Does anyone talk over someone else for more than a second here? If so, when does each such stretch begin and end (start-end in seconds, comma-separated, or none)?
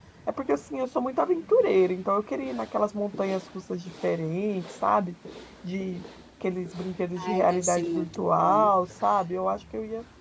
7.2-8.7